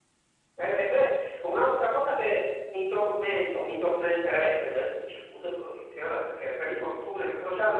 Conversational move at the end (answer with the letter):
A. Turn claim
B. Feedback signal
B